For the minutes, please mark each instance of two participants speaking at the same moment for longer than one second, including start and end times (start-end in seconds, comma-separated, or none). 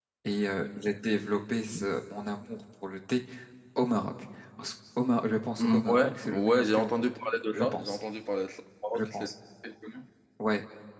5.6-7.0